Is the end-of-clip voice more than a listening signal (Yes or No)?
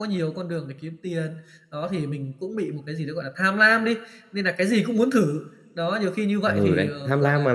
Yes